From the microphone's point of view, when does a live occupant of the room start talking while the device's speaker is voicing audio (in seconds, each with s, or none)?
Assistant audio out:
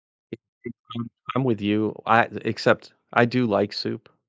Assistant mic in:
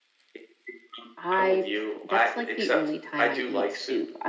1.1 s